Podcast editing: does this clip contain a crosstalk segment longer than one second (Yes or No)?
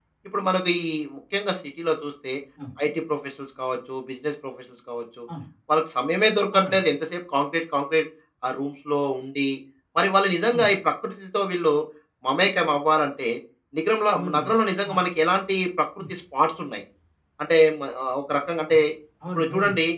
No